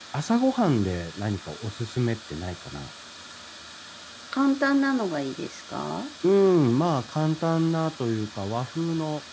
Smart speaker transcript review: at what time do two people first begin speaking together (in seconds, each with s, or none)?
none